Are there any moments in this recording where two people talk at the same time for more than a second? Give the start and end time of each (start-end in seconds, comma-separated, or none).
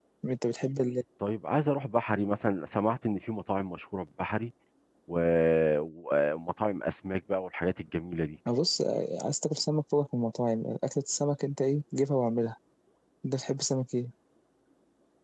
none